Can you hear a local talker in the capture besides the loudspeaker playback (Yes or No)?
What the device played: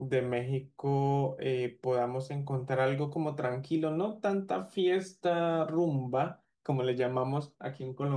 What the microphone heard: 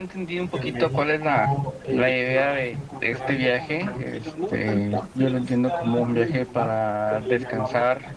Yes